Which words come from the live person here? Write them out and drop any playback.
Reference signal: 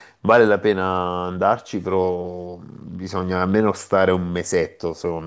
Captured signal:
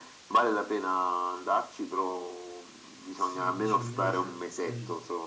Sì, dici un mese. Mm.

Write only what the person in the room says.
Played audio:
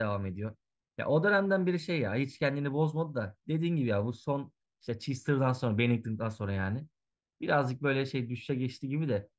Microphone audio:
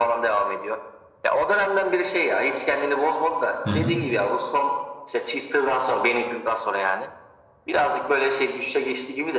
hı hı.

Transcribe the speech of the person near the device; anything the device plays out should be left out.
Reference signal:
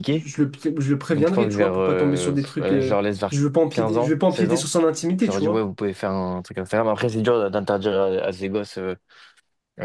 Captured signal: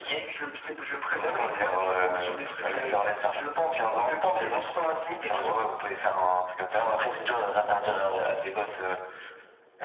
none

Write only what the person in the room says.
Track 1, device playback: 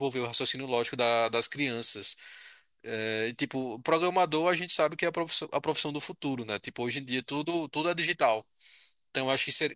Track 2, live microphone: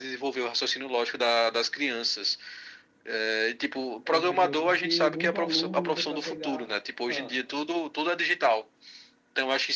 É, entendeu? Porque muito aluno usa para pegar. Ah,

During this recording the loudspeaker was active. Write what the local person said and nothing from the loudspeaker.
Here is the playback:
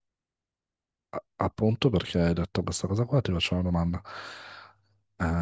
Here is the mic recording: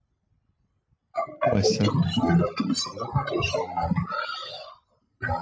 può essere.

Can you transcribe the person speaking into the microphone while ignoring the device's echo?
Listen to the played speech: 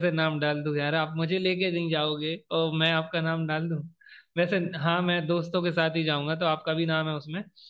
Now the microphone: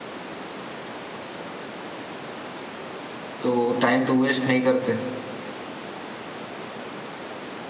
तो टाइम तो वेस्ट नहीं करते

